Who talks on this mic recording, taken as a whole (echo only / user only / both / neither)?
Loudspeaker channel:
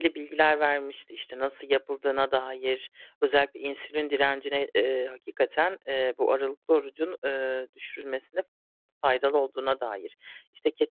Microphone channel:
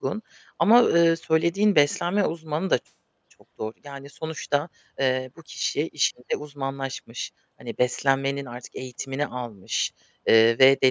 user only